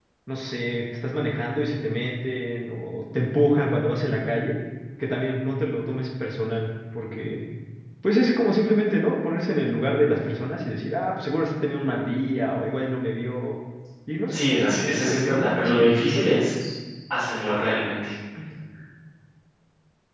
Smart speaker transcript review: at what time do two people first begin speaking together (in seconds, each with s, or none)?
14.3 s